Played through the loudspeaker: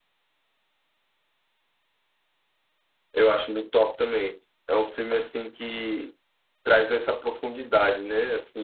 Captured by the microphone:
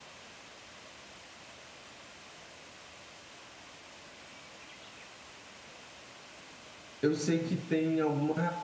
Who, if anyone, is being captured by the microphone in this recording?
user only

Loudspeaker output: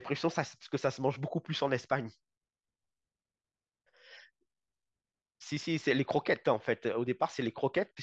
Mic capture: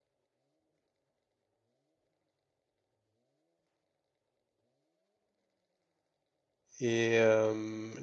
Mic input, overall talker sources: user only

